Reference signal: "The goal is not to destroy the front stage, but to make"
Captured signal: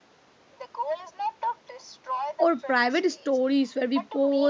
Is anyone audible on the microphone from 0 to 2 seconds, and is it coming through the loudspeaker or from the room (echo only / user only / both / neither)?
echo only